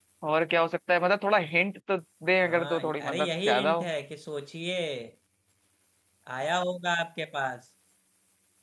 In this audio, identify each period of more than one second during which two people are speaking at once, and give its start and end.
2.5-3.9

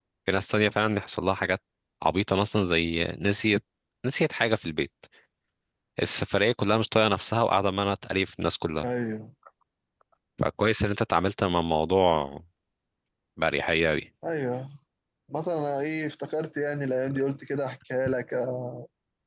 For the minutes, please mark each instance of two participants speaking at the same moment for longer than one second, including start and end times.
none

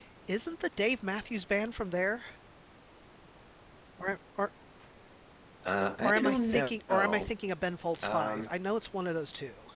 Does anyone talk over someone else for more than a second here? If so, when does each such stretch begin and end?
6.0-7.3

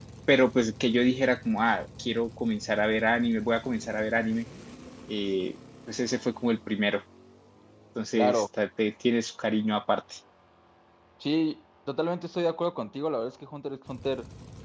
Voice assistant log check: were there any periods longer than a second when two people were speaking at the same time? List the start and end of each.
none

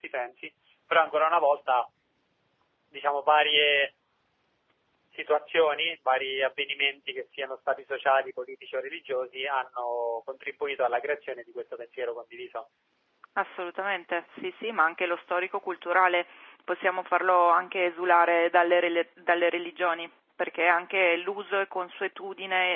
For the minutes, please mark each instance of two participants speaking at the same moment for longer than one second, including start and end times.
none

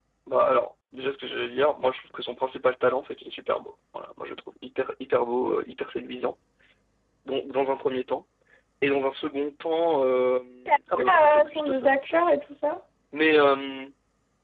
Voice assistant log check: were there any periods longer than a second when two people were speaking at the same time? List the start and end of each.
11.1-12.3

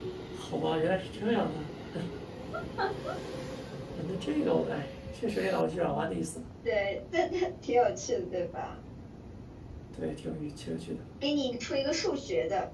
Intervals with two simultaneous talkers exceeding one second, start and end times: none

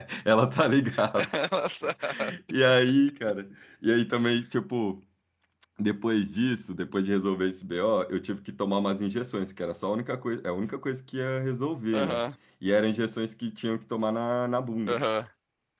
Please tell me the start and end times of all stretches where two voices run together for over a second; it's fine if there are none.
none

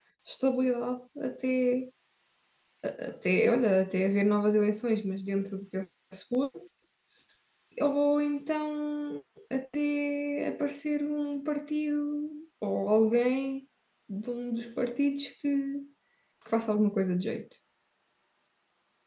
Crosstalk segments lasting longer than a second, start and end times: none

